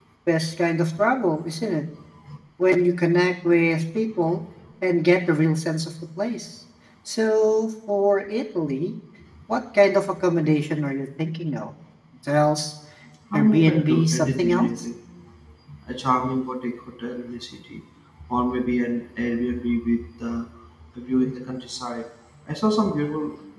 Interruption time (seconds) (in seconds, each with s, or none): 13.3 s